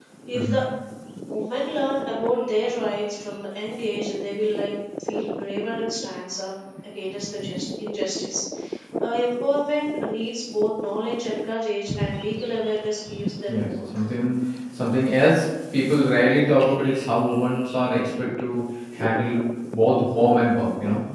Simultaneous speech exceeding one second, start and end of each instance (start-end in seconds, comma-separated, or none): none